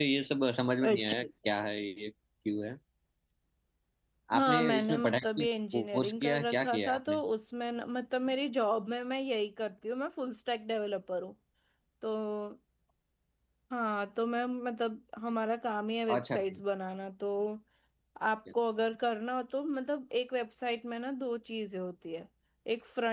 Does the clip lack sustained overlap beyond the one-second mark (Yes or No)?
No